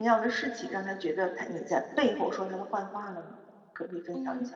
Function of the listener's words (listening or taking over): taking over